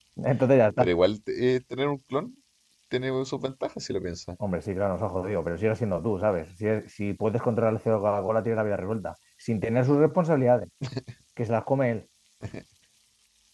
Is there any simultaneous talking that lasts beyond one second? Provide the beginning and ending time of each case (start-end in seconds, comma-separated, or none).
none